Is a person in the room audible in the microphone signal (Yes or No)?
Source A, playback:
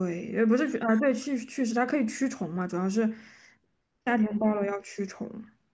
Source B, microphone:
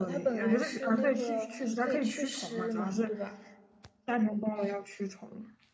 Yes